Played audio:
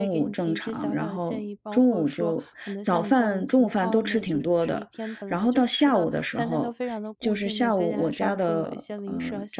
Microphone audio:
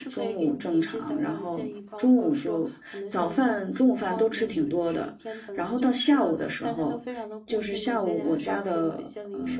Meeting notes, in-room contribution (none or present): none